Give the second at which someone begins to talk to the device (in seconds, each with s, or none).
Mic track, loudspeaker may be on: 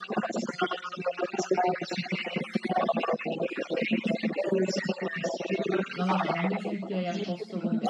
5.9 s